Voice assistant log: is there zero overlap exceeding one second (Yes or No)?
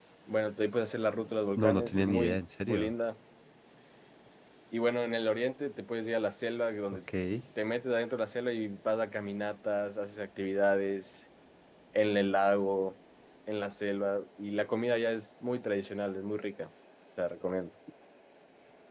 No